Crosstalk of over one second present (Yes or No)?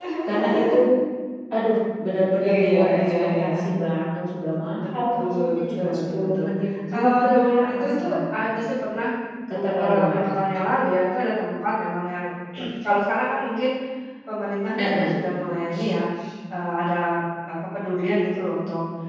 Yes